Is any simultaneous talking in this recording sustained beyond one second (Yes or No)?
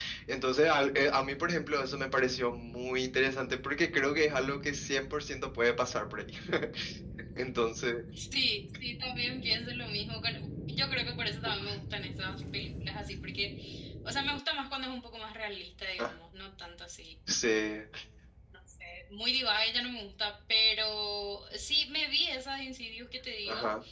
No